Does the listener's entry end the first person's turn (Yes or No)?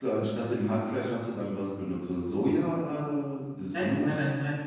Yes